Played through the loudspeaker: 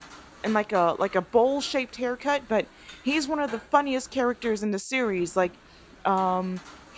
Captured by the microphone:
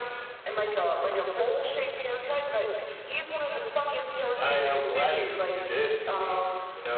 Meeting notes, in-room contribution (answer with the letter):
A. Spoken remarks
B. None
A